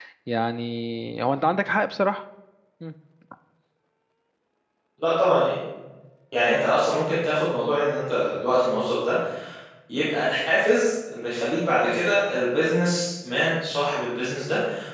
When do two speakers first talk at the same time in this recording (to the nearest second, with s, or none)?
none